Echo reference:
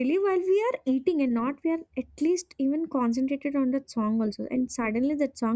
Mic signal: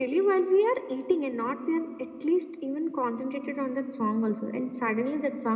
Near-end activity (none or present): none